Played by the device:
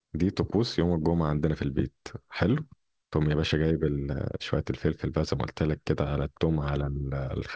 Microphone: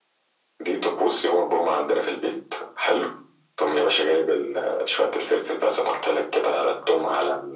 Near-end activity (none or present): none